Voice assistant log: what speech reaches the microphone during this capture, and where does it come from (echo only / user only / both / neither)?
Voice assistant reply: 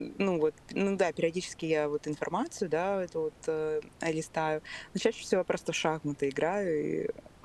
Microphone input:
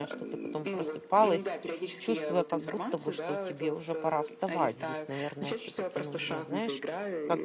both